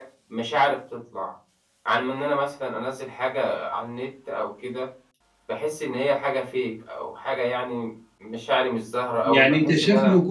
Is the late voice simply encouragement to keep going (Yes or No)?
No